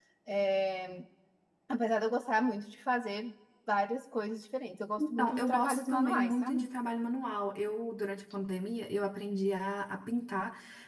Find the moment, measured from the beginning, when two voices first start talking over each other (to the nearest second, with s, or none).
5 s